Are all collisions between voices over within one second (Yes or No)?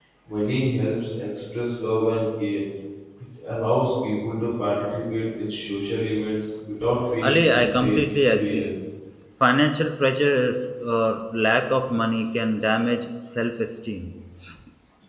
No